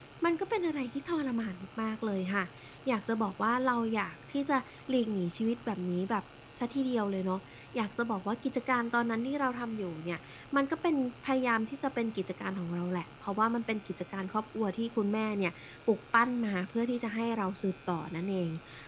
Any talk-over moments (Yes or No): No